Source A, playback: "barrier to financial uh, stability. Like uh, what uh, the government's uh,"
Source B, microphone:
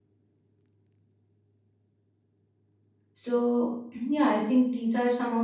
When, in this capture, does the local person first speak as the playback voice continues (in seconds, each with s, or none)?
3.1 s